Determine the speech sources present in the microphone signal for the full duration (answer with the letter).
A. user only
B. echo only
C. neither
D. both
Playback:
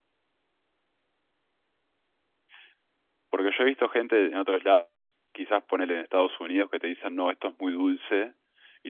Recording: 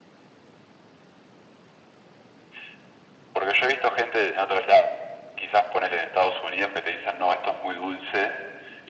B